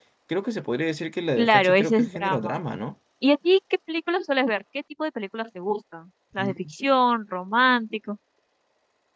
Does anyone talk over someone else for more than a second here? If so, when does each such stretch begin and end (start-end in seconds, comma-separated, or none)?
1.4-2.6